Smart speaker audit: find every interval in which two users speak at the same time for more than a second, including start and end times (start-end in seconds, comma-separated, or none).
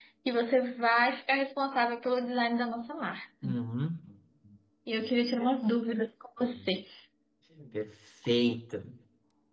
none